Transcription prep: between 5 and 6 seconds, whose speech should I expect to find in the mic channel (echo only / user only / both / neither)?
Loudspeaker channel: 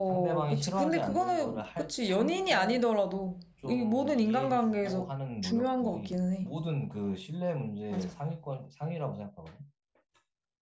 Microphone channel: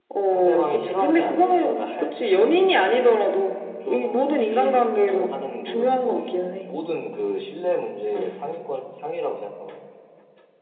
echo only